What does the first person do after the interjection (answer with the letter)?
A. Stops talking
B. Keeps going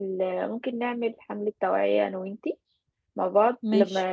B